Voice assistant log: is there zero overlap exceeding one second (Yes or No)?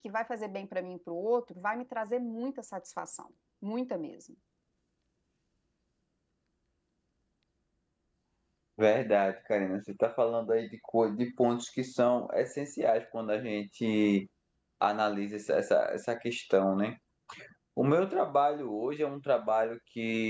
Yes